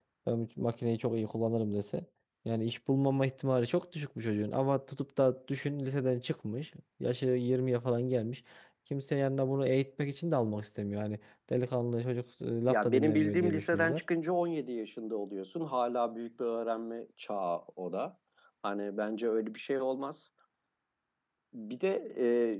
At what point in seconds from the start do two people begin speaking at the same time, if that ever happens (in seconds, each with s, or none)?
12.7 s